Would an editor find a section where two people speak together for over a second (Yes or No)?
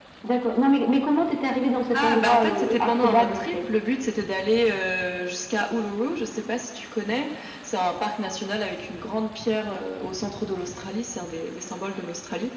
Yes